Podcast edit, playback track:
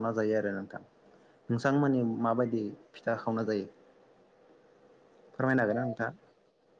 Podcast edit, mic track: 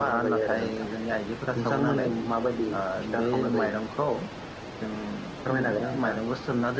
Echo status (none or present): present